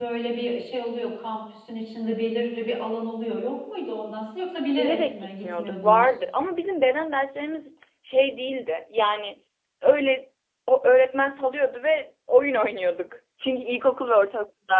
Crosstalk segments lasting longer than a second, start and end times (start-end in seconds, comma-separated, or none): 4.8-6.1